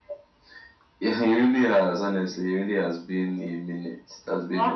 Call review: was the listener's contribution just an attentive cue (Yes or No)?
No